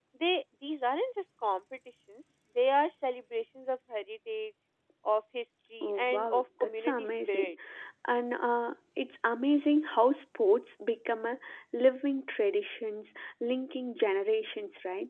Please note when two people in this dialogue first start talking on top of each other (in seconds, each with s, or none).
5.8 s